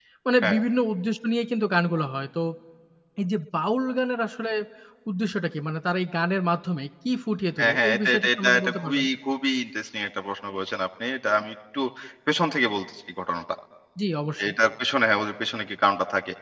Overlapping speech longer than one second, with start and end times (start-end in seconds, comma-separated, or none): 7.6-9.0